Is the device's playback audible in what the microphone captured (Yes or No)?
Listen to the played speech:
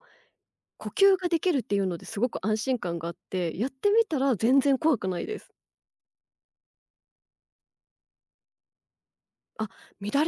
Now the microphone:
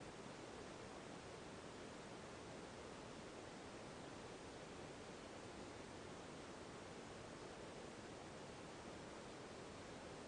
No